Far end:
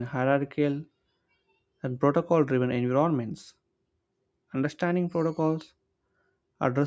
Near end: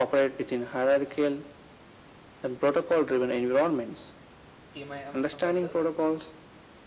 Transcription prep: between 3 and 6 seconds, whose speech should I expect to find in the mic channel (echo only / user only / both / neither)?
both